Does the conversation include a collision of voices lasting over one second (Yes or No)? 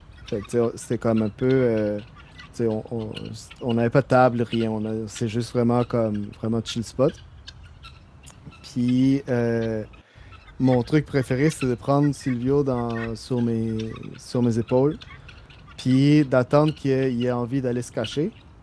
No